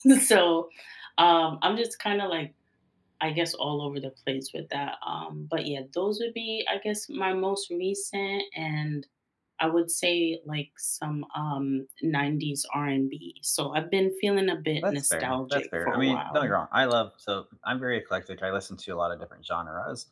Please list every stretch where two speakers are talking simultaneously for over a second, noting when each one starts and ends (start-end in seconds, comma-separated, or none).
14.8-16.5